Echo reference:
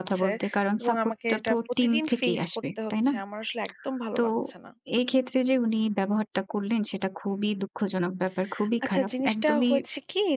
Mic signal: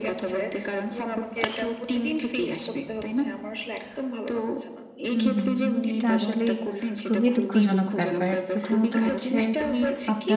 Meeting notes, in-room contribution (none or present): present